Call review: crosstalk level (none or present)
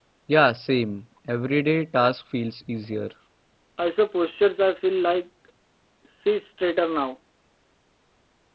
none